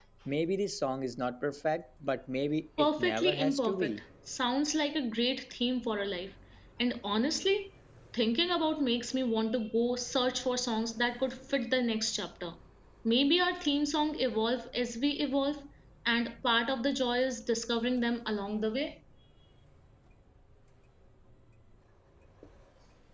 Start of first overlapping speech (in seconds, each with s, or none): 2.8 s